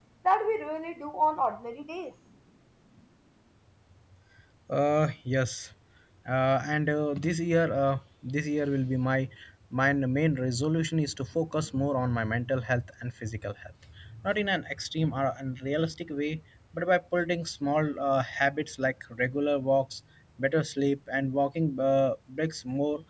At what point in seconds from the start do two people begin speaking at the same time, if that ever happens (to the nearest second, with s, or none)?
none